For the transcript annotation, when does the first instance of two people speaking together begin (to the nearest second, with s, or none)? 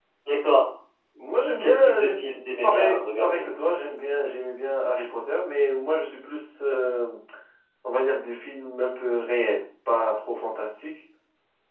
2 s